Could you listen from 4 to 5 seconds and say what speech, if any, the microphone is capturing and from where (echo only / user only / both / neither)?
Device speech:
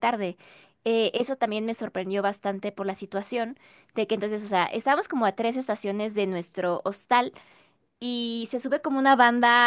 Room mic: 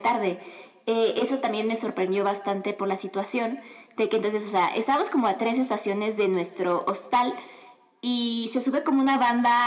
echo only